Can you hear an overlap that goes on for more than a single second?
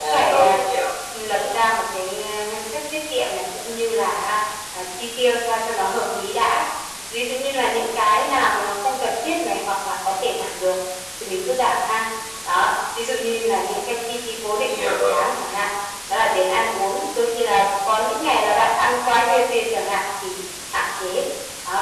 No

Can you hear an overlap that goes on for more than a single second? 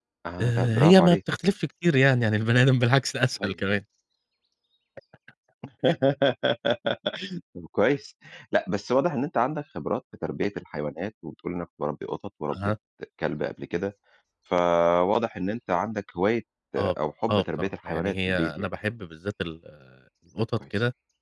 Yes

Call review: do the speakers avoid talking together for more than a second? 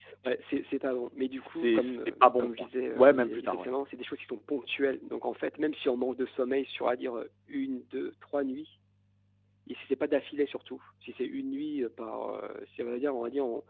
No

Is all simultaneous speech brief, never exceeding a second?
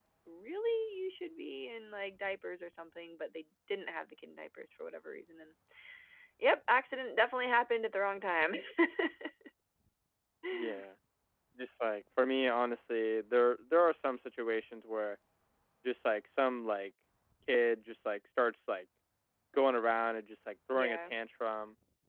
Yes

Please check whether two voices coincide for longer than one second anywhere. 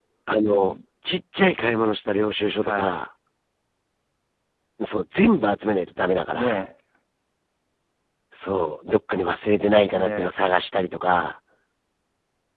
No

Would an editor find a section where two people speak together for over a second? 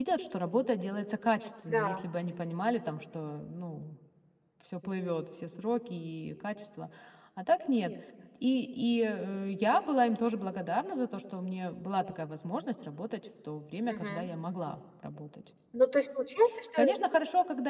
No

